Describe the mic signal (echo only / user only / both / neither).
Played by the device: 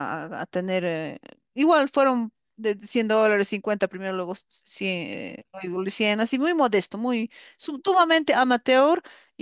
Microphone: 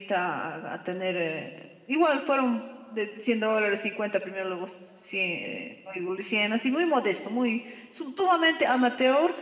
echo only